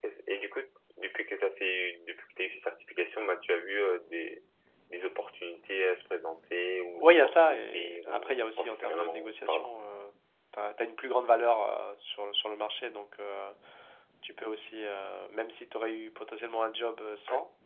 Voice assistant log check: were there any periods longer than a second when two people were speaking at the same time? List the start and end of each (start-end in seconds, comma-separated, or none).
7.0-9.7